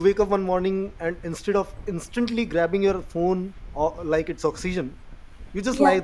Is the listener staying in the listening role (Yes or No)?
Yes